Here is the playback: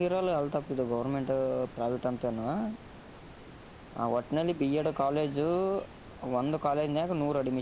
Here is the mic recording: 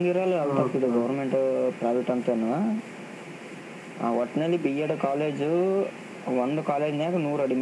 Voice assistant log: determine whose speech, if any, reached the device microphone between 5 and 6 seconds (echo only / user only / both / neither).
echo only